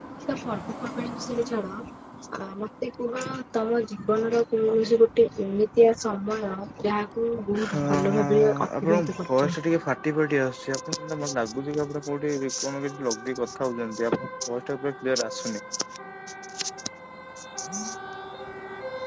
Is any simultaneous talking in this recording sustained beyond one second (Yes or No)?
Yes